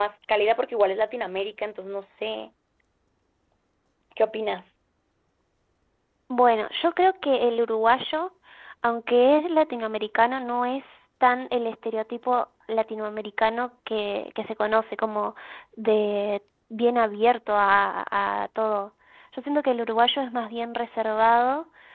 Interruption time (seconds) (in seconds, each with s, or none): none